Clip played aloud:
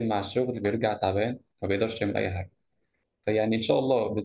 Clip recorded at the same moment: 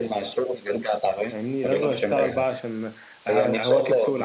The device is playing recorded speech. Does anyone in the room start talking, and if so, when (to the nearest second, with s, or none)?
1 s